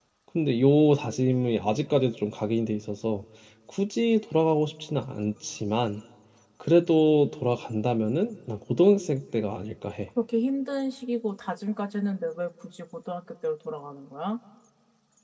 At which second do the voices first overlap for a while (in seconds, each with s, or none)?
none